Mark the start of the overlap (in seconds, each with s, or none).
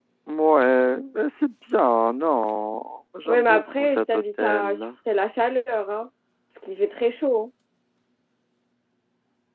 3.2 s